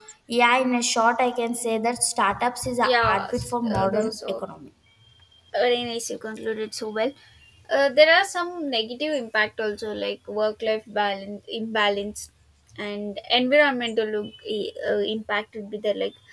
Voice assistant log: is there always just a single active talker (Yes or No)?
No